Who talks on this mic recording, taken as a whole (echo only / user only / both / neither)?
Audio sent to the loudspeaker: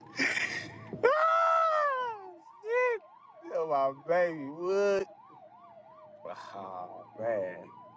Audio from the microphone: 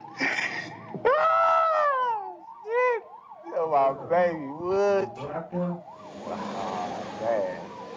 both